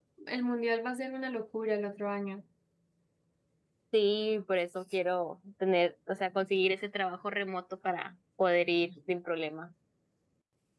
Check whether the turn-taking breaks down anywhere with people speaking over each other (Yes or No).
No